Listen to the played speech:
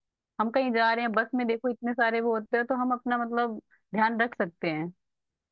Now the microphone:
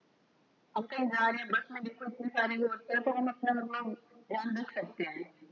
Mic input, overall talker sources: echo only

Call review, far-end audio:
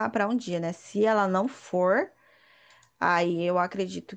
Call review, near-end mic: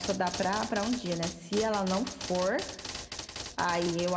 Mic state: echo only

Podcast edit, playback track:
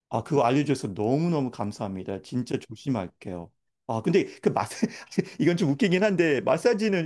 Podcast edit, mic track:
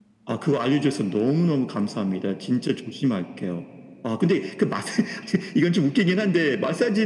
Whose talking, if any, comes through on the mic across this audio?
echo only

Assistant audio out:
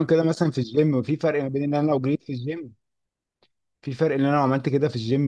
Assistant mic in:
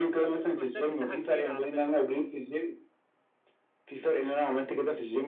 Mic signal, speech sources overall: both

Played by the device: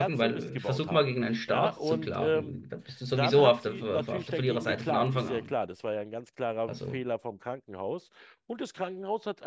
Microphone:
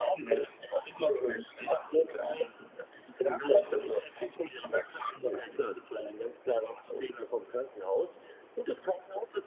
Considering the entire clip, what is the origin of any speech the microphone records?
echo only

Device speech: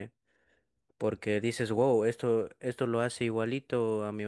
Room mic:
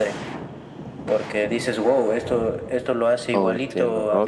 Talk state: both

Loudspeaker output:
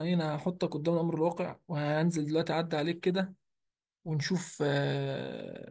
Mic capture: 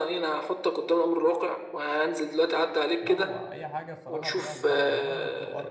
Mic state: both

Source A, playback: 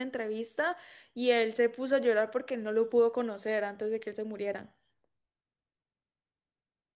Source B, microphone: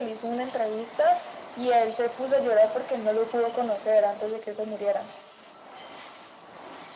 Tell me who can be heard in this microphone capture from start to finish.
echo only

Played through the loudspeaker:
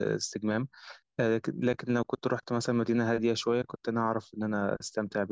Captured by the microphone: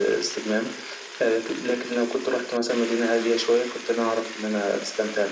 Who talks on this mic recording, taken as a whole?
echo only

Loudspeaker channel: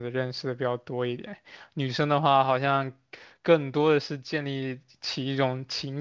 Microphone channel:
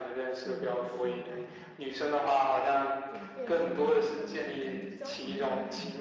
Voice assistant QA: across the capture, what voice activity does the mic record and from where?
both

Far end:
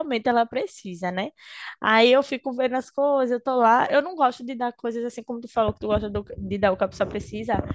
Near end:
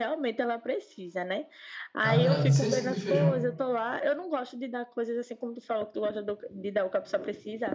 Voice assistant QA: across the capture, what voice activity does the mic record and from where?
both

